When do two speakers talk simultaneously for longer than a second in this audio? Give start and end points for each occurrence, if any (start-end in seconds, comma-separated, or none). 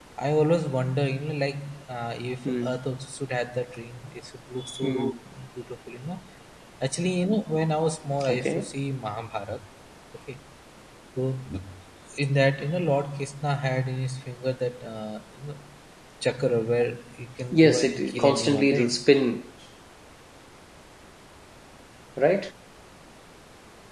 17.5-18.9